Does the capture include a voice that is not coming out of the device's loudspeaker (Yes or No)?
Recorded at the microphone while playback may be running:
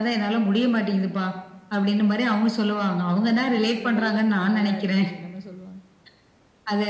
Yes